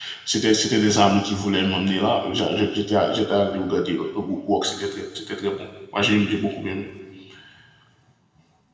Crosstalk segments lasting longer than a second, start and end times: none

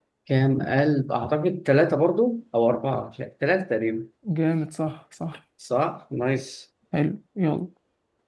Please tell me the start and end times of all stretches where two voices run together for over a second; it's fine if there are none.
none

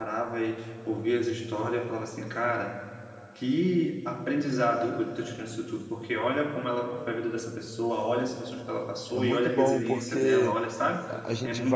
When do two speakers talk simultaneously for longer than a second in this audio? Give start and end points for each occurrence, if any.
9.1-10.6

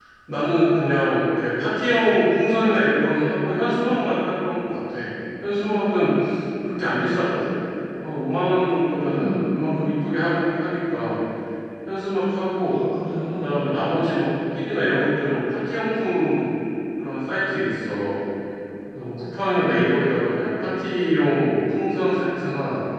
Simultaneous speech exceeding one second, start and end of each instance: none

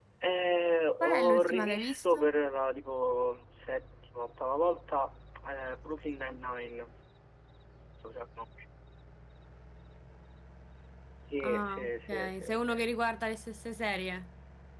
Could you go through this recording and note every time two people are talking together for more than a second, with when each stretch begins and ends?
1.0-2.3, 11.4-12.9

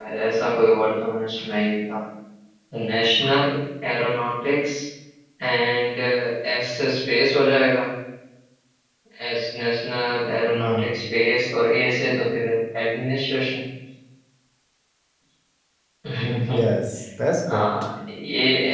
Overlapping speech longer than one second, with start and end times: none

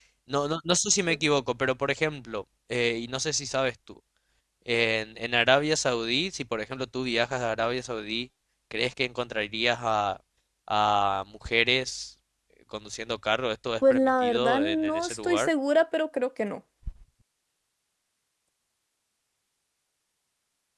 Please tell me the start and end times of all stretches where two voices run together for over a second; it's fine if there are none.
13.8-15.5

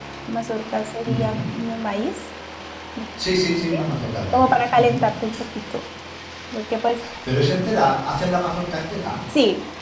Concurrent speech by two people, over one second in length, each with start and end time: none

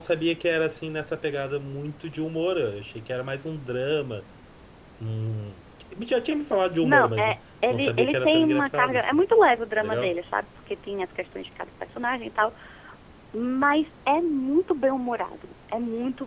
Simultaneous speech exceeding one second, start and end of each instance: 7.7-9.2

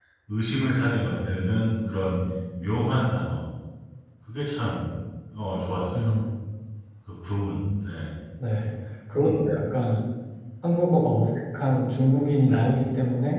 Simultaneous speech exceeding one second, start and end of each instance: none

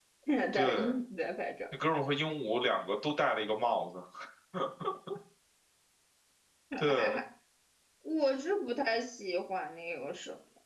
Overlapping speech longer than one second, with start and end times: none

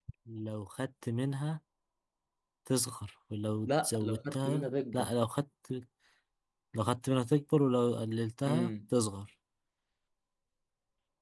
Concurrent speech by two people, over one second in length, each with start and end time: 3.7-5.1

